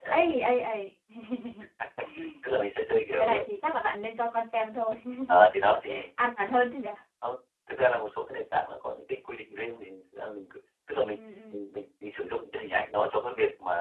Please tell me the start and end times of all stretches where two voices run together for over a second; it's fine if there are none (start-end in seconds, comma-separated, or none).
none